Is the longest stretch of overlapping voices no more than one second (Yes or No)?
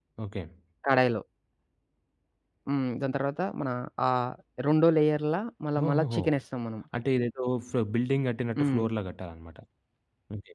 Yes